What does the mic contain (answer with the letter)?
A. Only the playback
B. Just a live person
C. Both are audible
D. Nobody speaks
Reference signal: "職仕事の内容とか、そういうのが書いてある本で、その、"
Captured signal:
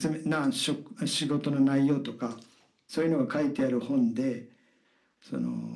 A